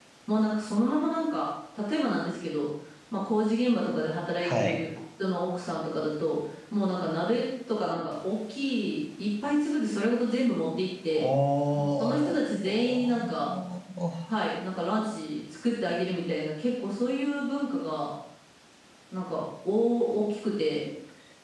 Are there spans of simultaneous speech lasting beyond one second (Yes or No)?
Yes